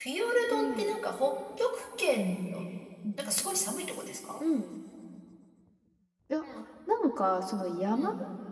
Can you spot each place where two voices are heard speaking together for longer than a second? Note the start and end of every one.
none

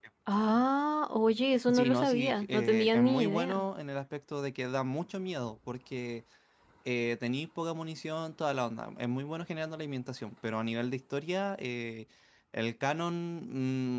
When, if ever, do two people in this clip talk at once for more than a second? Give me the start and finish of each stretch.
1.7-3.6

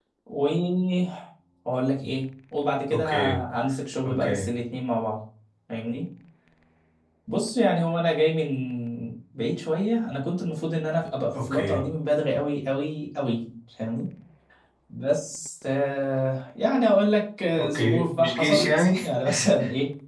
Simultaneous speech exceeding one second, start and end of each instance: 17.6-18.8

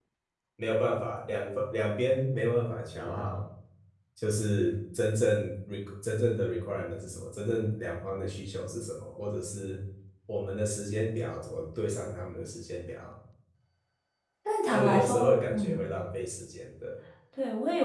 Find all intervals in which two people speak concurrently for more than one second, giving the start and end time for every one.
14.7-15.9

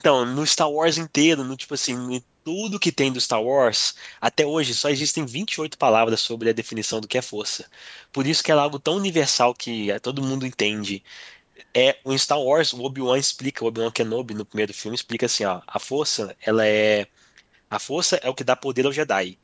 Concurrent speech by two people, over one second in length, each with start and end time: none

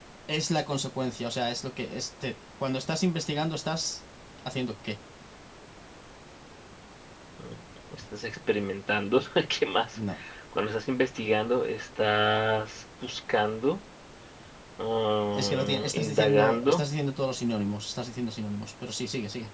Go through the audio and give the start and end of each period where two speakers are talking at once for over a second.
15.3-16.8

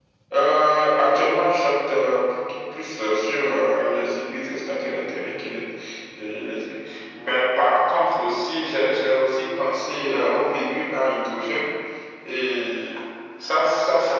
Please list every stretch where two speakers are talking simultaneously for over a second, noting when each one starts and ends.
none

